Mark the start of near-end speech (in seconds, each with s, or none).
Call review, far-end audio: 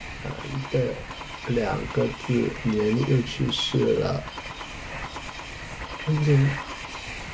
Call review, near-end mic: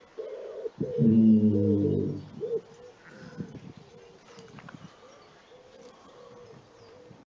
1.0 s